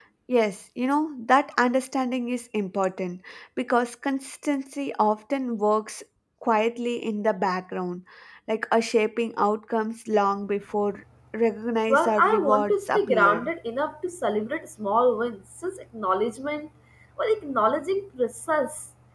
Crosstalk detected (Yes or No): Yes